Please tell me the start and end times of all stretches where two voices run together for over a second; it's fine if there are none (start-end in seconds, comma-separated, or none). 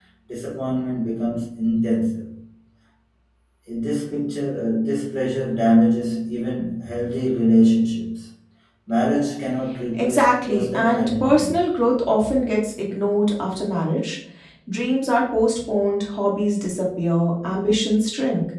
9.9-11.5